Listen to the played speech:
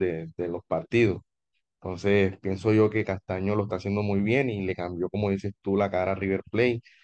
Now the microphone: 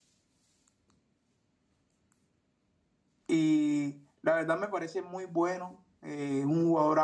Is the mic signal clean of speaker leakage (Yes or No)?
Yes